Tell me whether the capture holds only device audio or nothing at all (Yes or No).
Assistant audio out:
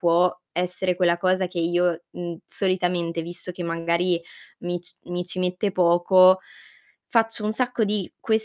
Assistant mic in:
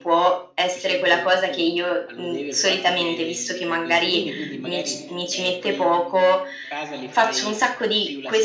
No